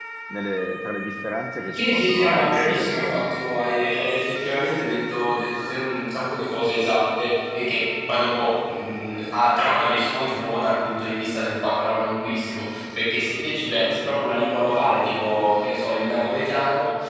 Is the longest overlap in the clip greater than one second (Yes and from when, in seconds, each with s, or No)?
Yes, from 1.7 s